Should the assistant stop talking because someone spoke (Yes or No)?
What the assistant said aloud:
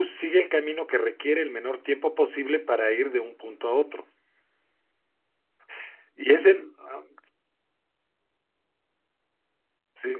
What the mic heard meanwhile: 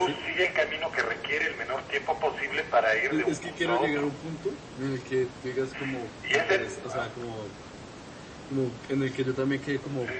Yes